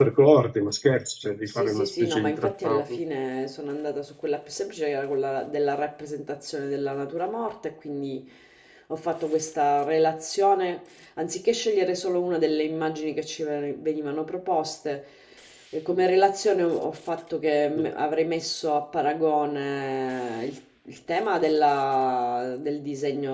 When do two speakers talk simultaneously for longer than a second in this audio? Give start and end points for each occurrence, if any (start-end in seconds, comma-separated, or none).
1.5-3.0